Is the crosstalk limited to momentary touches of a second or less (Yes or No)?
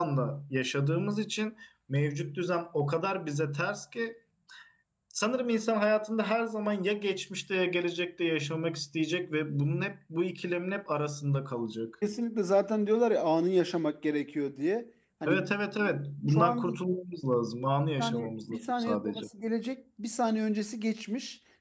No